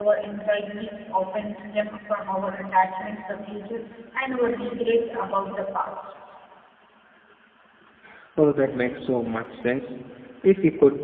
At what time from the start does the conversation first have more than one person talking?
none

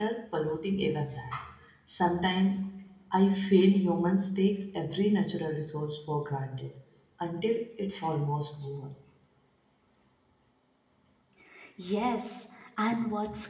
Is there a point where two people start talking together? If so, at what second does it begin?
none

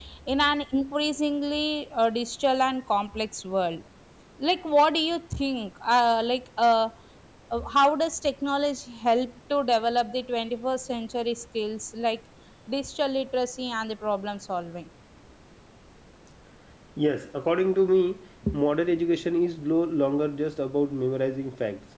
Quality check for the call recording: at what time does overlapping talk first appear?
none

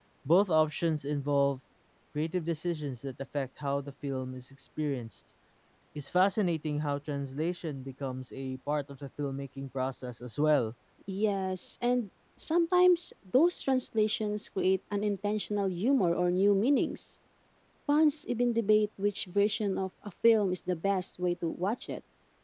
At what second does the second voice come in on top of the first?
none

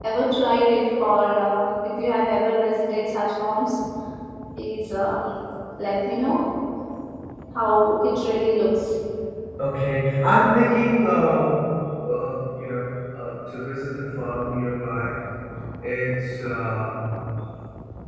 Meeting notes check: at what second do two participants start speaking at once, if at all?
none

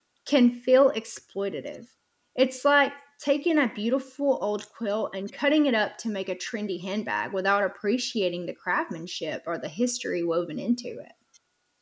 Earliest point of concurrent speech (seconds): none

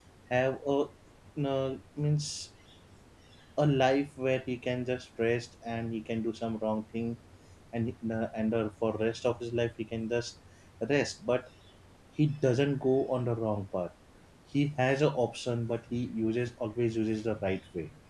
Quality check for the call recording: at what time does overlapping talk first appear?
none

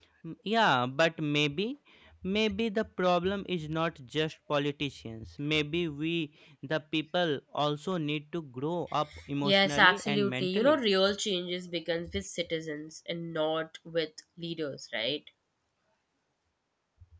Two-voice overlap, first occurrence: 9 s

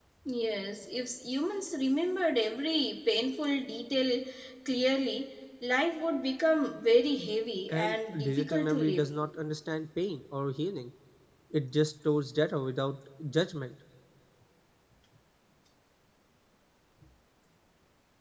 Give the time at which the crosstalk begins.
8 s

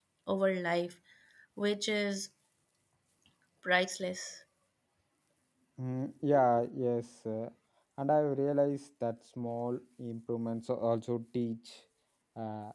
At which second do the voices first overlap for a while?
none

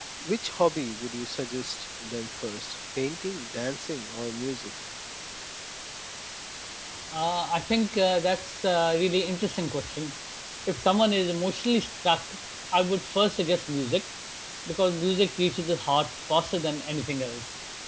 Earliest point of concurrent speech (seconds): none

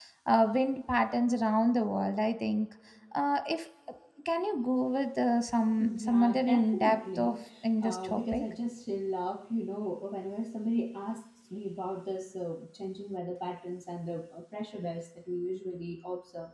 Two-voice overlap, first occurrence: 6 s

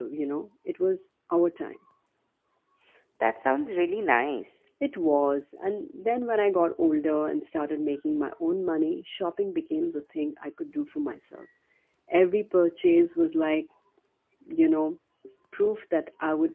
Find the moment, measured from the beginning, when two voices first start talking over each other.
none

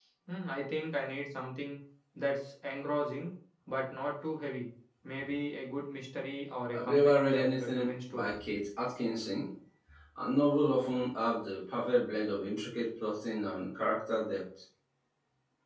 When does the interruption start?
7 s

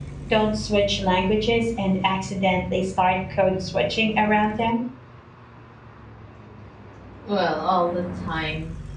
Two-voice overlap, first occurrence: none

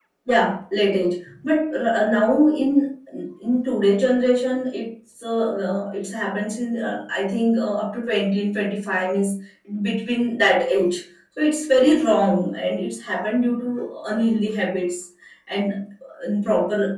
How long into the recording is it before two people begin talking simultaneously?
none

